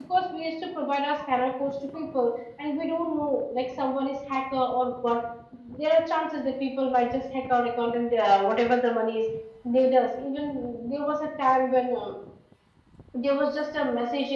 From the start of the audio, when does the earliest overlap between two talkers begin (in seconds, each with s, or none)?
none